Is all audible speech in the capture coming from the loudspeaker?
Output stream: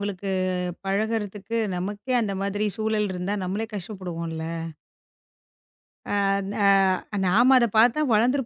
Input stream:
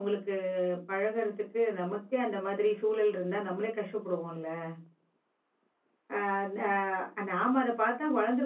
Yes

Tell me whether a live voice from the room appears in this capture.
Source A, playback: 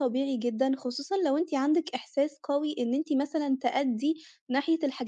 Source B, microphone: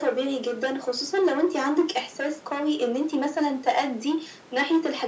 No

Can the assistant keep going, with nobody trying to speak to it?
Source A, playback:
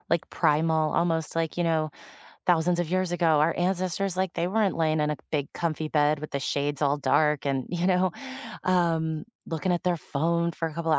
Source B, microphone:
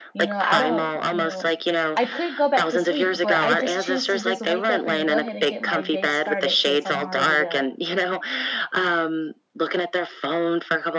No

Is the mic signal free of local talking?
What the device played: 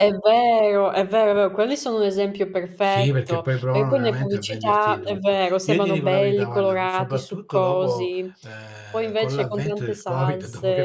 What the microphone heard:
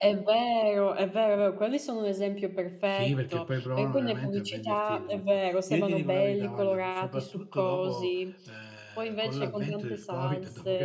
Yes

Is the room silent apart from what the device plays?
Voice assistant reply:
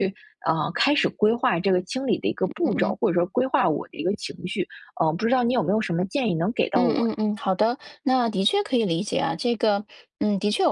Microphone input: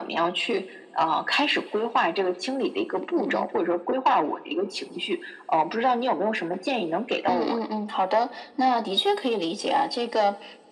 Yes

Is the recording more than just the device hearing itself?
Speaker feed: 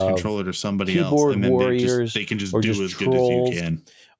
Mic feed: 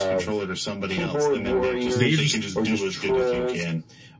Yes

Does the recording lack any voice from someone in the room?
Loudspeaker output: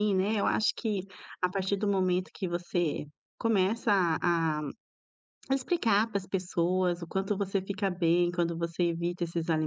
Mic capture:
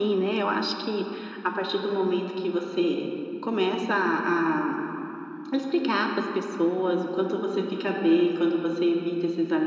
Yes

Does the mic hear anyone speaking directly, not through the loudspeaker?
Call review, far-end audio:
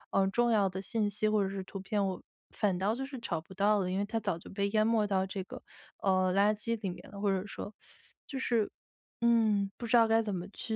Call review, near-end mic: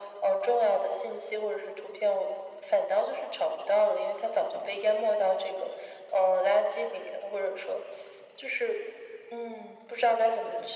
No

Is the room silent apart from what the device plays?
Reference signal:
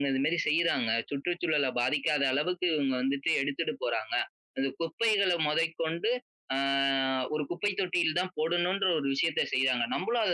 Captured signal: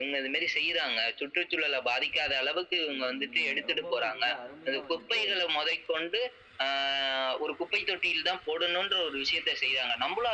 No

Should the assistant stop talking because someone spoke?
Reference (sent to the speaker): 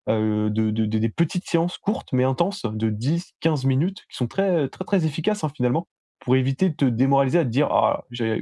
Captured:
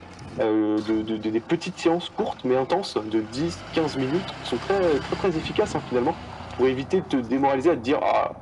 No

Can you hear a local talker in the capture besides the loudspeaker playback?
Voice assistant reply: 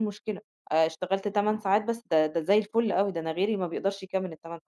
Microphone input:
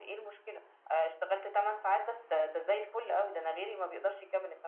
No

